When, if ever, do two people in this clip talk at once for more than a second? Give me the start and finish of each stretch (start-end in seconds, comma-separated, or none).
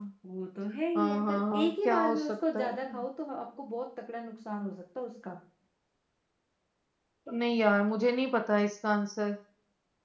0.9-2.9